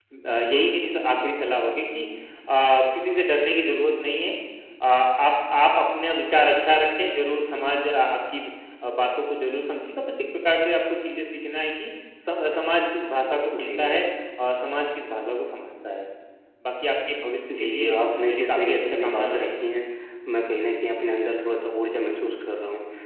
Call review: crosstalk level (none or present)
present